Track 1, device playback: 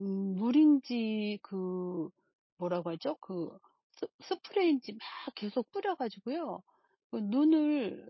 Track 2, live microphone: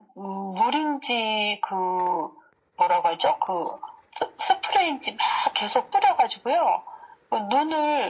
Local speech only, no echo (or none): none